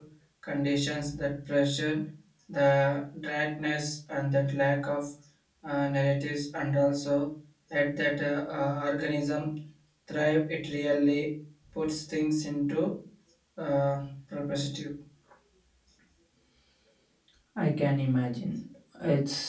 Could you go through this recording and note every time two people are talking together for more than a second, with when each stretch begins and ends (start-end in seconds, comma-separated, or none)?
none